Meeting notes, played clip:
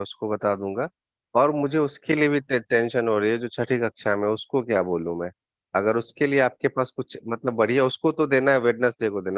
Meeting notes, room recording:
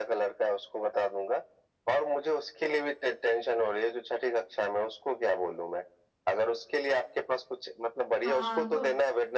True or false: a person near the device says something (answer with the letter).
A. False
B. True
B